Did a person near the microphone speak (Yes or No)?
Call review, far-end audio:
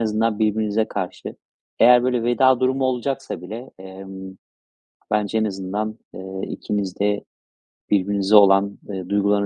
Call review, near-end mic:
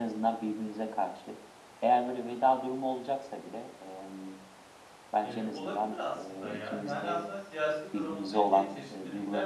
Yes